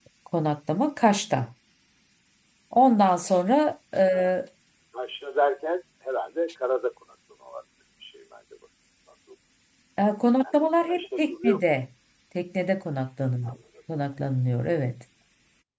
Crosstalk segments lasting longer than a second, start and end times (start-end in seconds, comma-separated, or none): 10.4-11.7